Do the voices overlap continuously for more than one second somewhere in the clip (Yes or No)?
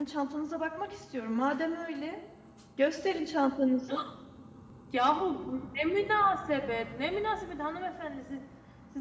No